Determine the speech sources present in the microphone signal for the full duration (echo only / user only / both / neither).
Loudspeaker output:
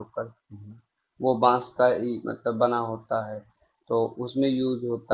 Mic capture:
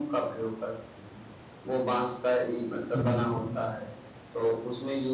both